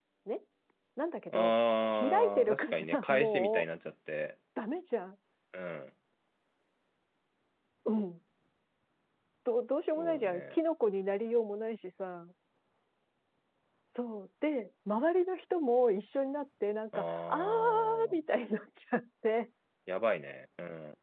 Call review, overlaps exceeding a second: present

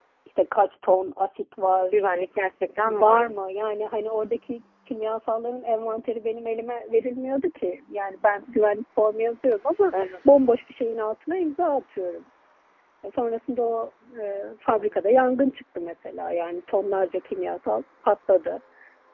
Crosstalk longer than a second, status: none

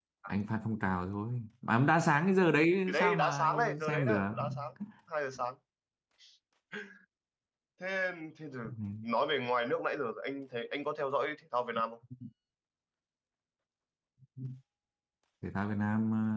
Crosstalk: present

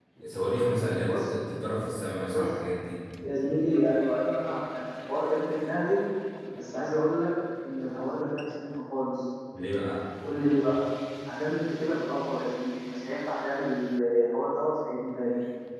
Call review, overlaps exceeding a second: none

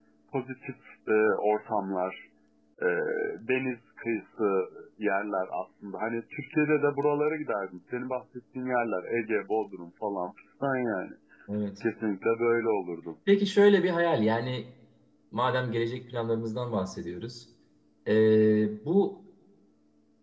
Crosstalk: none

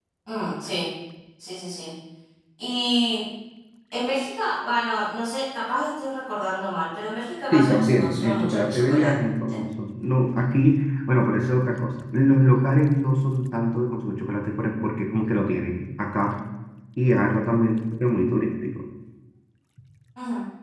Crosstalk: present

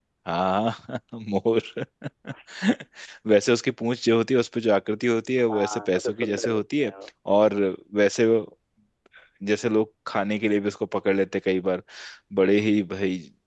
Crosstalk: present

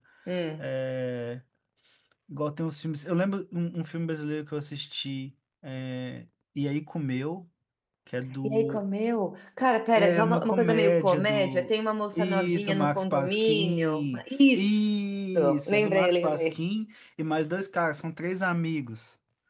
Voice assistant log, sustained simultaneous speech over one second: present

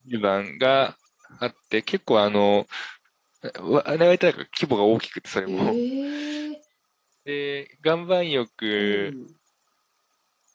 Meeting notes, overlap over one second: none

